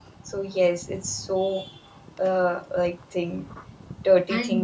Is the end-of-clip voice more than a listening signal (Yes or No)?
Yes